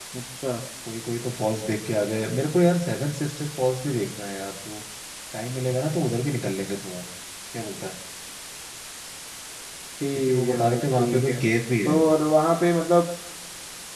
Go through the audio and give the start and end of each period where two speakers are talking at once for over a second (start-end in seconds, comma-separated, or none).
10.1-11.4